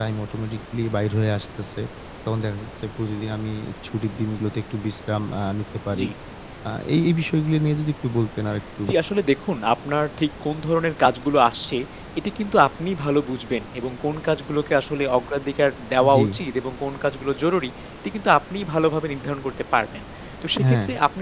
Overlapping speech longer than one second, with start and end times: none

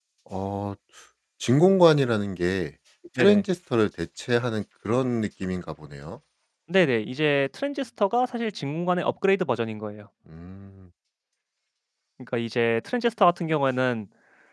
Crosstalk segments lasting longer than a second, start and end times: none

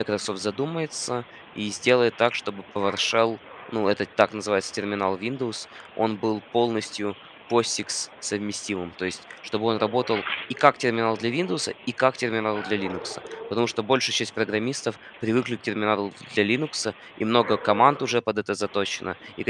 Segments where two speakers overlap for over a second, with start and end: none

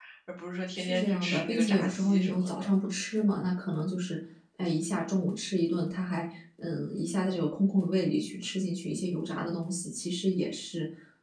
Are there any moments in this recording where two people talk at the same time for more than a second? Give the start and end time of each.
0.8-2.7

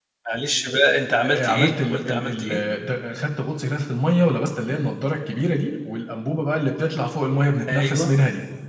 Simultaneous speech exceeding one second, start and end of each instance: 1.2-2.6

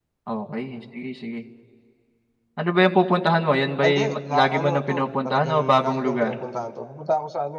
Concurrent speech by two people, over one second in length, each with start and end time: 3.8-6.4

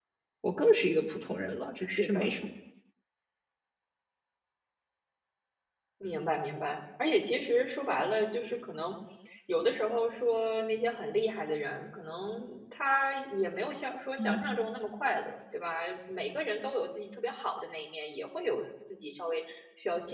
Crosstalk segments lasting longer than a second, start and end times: none

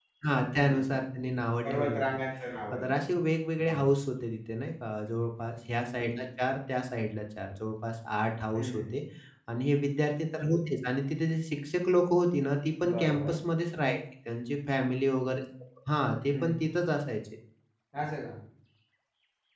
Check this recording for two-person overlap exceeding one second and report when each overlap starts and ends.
none

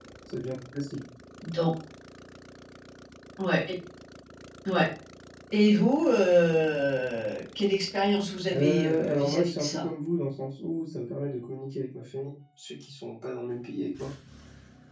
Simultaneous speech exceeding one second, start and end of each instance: 8.5-9.9

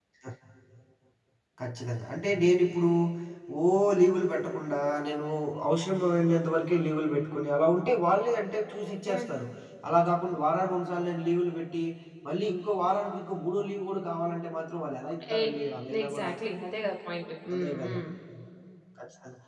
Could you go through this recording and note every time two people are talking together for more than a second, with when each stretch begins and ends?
none

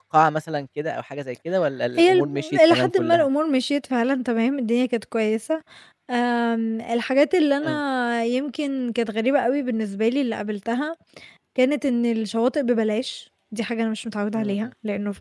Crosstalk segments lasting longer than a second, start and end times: 2.0-3.2

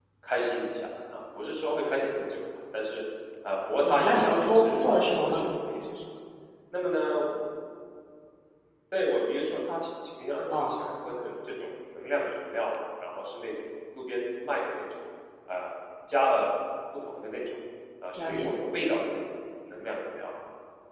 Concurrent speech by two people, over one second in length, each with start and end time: 3.8-5.4

